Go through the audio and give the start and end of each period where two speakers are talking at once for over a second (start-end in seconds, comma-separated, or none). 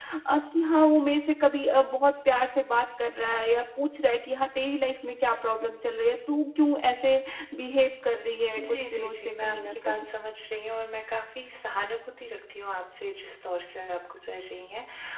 8.7-10.0